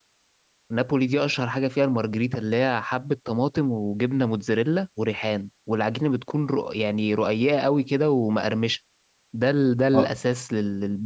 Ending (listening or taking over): listening